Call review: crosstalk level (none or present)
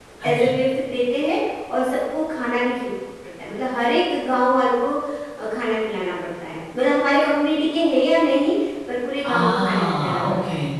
present